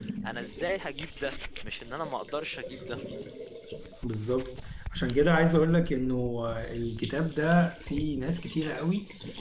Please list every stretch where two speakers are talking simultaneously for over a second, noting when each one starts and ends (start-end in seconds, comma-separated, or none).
none